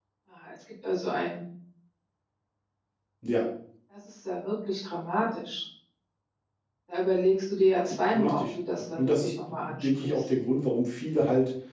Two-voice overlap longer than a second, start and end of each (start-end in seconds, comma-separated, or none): 9.0-10.2